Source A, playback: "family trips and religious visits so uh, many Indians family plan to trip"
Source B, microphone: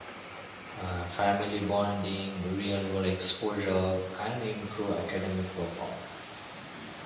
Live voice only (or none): uh, family bonding real world exposure and improve academic performance